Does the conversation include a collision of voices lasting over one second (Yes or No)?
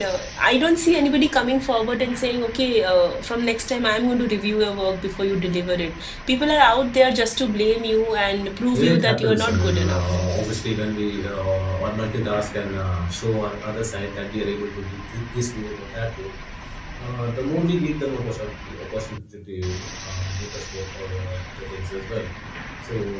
Yes